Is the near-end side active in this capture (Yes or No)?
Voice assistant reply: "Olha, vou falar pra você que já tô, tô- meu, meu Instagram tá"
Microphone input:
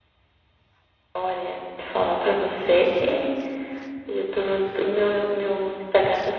No